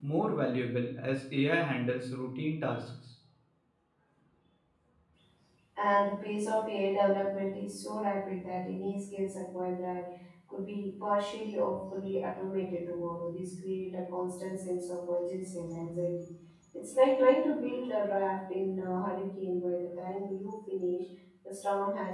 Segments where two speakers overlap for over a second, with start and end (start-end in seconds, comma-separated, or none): none